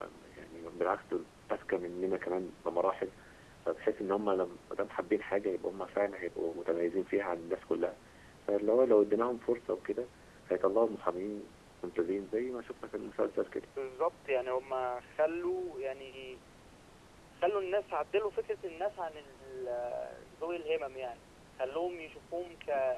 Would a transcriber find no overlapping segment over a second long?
Yes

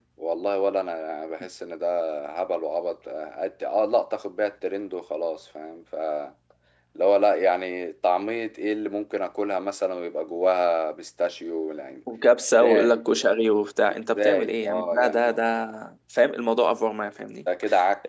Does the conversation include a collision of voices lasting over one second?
Yes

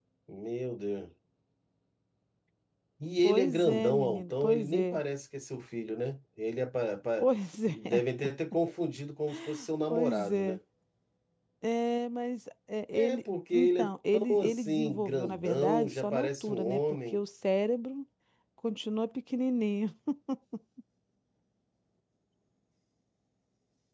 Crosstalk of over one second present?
Yes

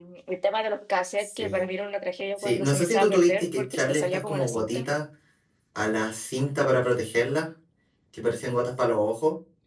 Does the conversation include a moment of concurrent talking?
Yes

